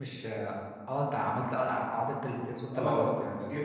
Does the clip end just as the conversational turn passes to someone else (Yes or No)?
Yes